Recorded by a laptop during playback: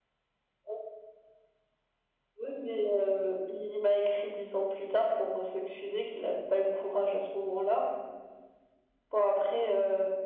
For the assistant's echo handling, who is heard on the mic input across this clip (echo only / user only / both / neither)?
echo only